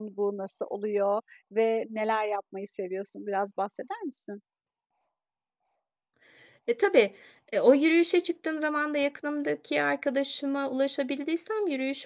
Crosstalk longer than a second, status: none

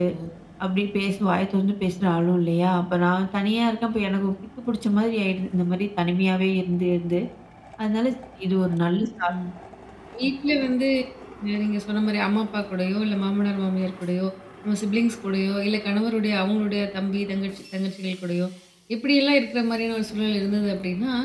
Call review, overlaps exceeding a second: none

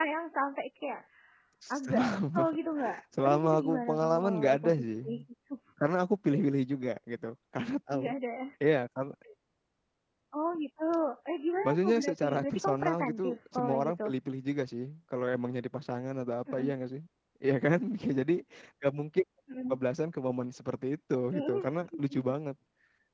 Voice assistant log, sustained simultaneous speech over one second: present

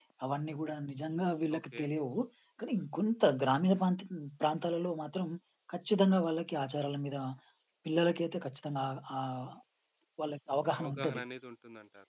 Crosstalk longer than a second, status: none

